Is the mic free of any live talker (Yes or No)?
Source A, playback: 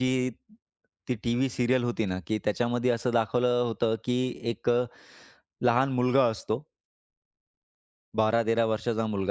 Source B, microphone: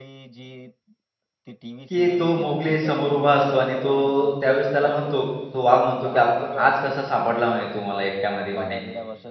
No